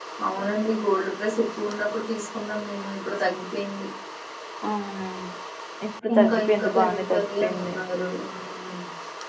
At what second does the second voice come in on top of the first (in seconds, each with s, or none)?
6.2 s